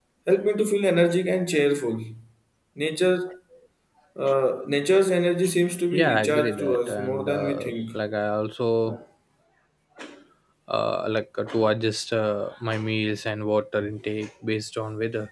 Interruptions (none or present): present